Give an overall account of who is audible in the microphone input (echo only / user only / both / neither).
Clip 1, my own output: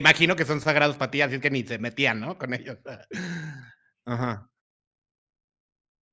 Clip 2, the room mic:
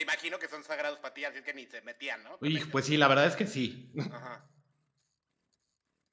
both